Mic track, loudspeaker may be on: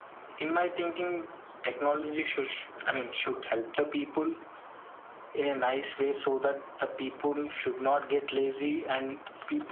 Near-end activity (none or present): none